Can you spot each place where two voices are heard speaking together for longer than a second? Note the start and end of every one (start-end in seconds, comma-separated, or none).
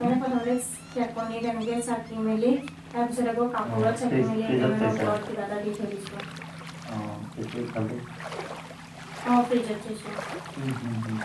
3.7-5.1